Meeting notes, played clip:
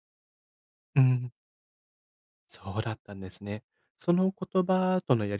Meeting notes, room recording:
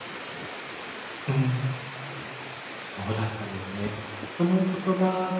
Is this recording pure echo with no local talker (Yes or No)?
Yes